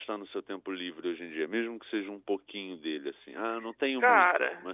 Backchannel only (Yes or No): No